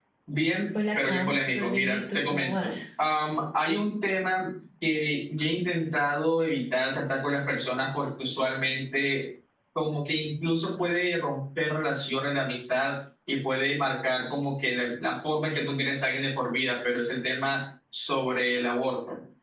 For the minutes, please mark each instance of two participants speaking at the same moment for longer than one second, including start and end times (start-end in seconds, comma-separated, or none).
0.9-2.7